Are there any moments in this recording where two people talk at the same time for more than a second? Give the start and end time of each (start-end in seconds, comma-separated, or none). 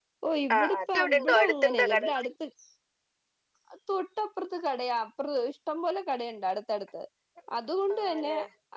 0.6-2.3